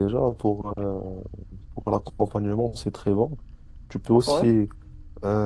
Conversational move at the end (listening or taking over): listening